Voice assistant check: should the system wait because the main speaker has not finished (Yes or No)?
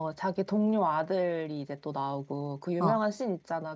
Yes